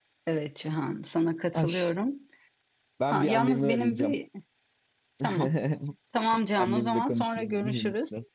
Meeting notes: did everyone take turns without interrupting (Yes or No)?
No